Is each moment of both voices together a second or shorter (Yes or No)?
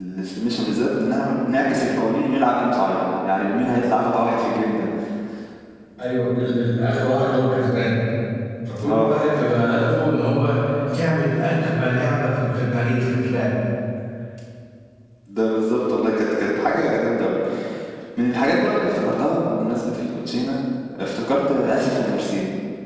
Yes